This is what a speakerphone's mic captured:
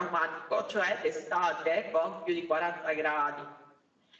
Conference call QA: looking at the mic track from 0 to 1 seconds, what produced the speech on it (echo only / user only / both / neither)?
echo only